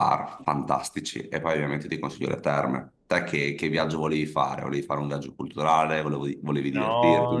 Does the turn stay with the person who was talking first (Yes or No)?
No